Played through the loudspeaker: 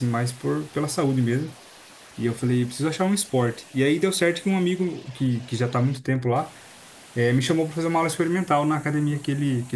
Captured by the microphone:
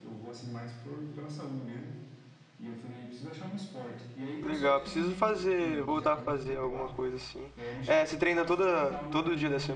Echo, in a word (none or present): present